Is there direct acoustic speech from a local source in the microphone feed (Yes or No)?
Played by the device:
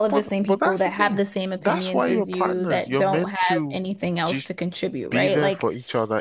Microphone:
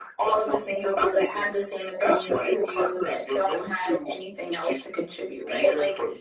No